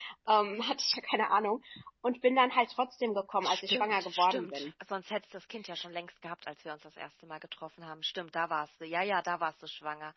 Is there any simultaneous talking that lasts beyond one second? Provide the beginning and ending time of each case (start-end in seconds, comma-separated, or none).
3.4-4.7